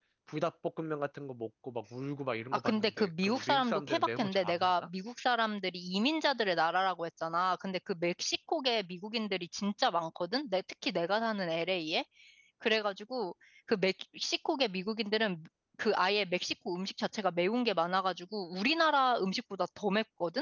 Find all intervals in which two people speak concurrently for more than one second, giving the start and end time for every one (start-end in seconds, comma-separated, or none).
2.5-4.7